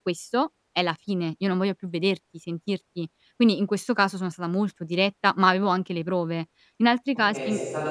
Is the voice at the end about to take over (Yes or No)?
Yes